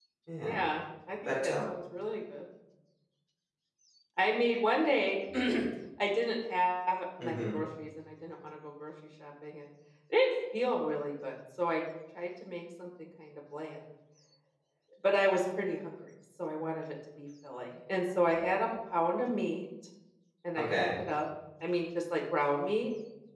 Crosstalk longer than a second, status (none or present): none